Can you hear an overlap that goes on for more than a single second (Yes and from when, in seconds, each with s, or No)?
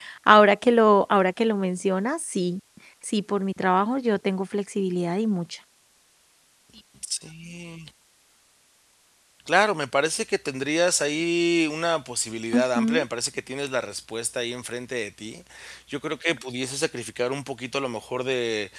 No